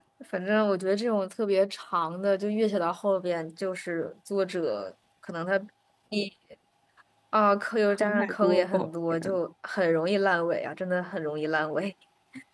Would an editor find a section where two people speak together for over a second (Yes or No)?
Yes